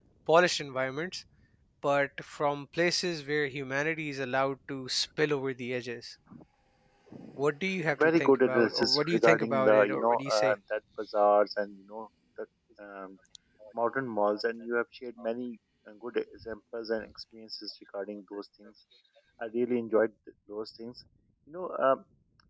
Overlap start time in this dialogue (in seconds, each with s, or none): 7.9 s